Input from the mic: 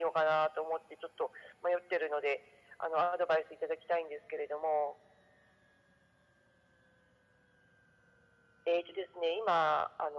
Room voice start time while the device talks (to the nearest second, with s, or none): none